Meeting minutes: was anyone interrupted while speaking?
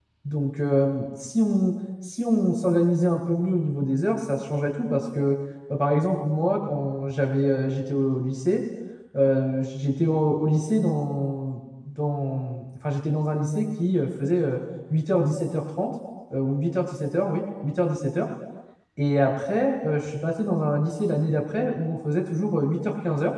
No

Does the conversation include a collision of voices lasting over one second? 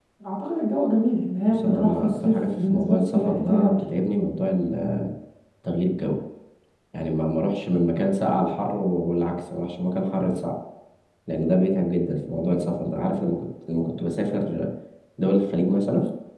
Yes, from 1.5 s

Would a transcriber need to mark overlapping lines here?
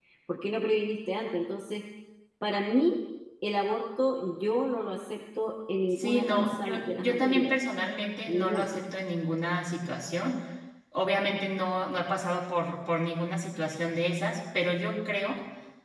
Yes, from 6.0 s

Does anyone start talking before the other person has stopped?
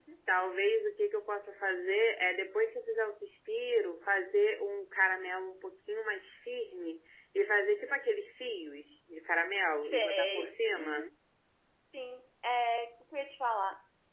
Yes, from 9.8 s

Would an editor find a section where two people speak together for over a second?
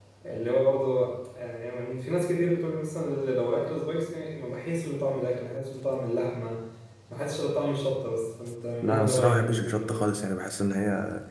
Yes, from 8.8 s

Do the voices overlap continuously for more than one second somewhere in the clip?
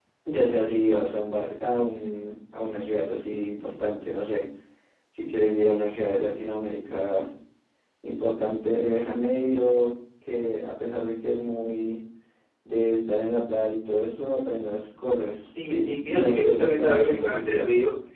Yes, from 15.6 s

